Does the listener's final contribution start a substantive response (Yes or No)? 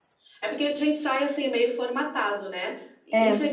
No